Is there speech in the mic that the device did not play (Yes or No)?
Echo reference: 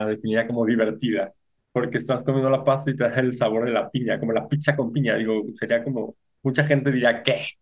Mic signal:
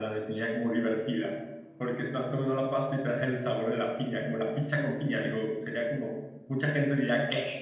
No